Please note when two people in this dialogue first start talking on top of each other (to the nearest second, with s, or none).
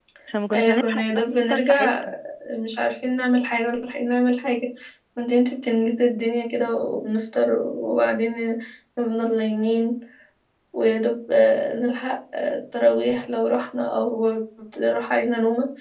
1 s